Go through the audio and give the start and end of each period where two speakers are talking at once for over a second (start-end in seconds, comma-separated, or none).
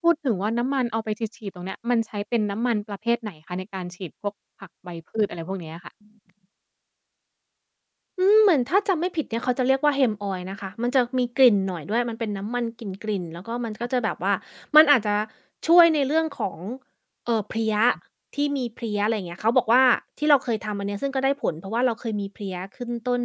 none